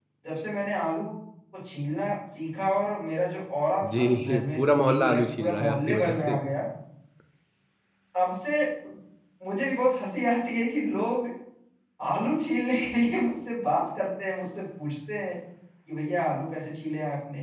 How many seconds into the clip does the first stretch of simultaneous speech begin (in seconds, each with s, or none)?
3.8 s